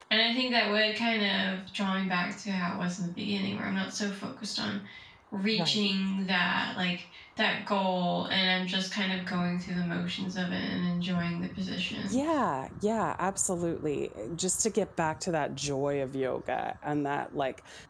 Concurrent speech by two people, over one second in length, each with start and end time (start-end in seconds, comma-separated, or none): none